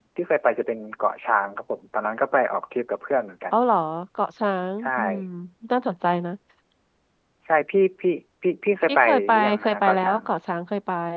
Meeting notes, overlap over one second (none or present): present